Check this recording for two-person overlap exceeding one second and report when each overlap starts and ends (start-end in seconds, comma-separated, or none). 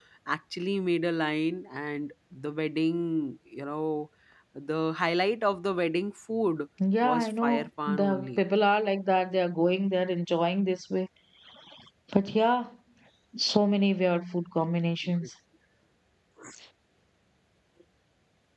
7.0-8.4